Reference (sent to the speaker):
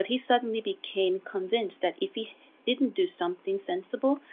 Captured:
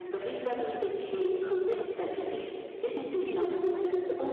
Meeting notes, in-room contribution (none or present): present